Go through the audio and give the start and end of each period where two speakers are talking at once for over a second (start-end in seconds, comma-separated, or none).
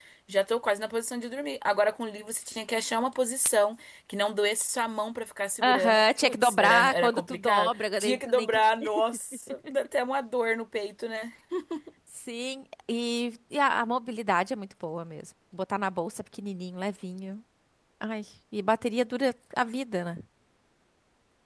5.6-8.6